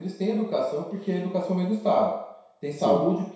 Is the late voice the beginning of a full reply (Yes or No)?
No